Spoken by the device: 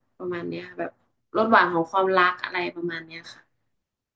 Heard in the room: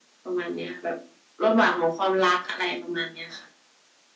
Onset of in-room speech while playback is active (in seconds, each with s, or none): none